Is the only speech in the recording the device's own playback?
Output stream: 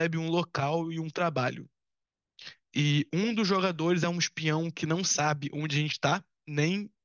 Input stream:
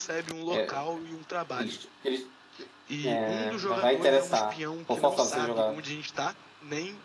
No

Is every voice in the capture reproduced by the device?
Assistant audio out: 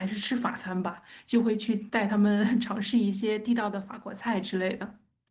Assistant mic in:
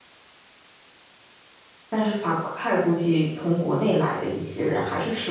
No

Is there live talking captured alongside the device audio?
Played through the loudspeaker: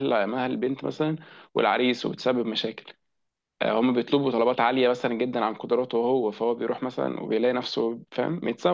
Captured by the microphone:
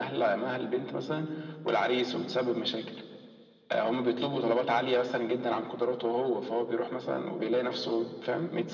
No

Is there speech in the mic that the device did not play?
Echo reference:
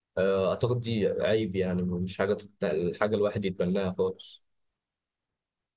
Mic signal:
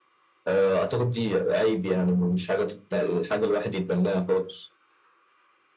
No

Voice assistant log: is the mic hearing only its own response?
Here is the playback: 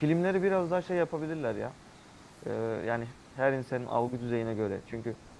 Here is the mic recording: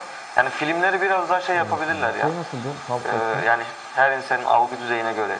No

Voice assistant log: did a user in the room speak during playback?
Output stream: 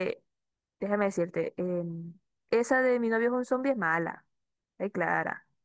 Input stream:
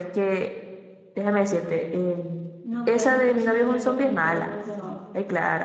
Yes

